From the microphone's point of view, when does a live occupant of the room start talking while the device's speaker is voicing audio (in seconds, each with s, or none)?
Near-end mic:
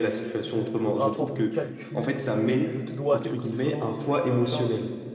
0.4 s